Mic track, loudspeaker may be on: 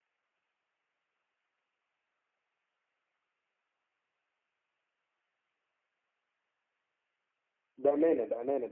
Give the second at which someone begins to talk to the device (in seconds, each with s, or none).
7.8 s